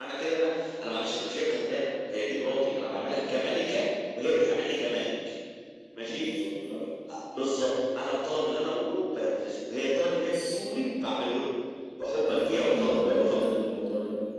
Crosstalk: present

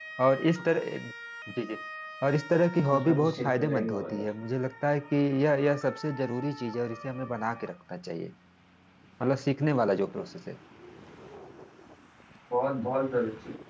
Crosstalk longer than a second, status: present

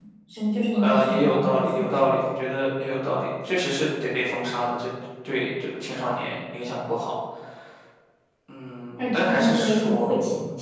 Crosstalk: present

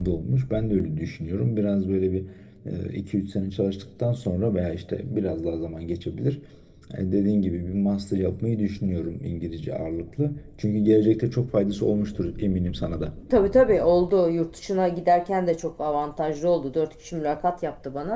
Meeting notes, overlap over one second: none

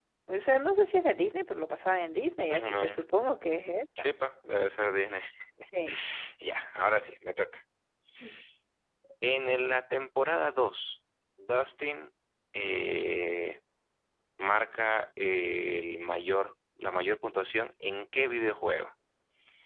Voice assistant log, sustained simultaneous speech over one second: none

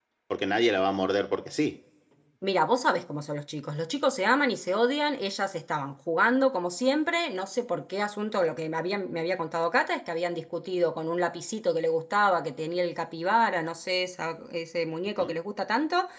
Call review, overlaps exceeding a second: none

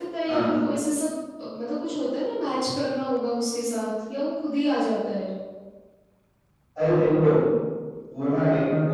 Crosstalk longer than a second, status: none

